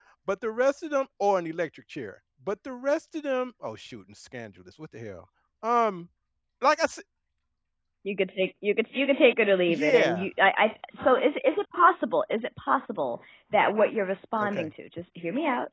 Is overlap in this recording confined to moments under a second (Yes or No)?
Yes